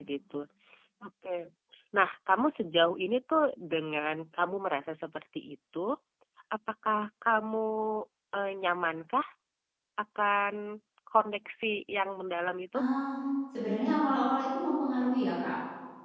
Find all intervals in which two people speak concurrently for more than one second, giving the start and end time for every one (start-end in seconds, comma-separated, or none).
none